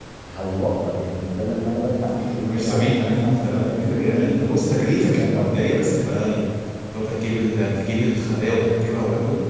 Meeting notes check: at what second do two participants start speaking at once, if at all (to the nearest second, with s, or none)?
2 s